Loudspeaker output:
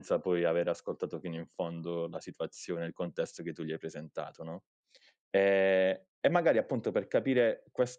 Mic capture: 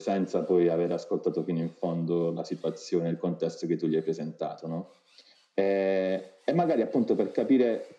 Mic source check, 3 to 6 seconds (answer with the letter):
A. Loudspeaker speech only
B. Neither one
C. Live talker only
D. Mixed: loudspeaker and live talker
A